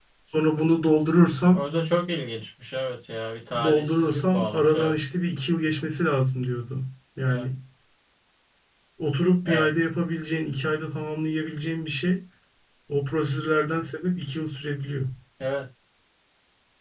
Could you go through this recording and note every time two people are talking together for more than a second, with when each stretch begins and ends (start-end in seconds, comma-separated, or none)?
3.6-5.0